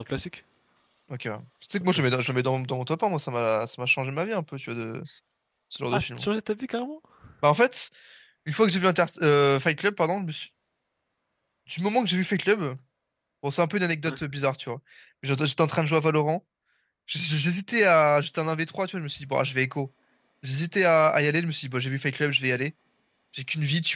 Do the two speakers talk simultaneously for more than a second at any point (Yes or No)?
No